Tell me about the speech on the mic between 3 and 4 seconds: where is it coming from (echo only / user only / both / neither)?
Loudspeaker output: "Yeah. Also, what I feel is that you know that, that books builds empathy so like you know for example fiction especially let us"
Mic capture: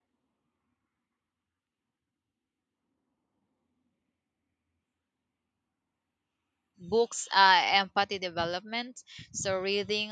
neither